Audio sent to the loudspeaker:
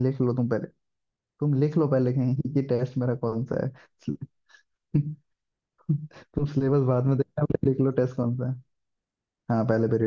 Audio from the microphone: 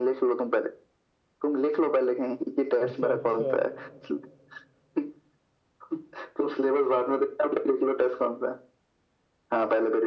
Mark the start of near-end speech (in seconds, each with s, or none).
2.8 s